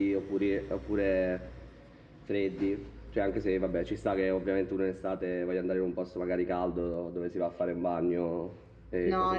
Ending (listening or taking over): taking over